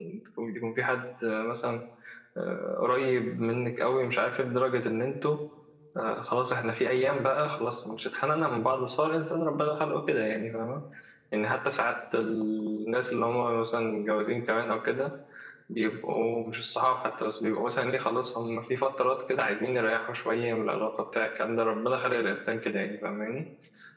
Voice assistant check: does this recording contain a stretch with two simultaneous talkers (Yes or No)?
No